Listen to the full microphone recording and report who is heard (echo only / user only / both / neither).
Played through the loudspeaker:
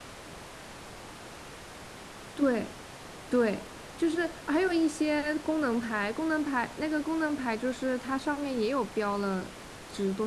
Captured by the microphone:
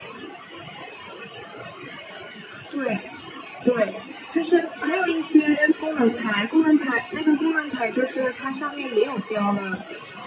echo only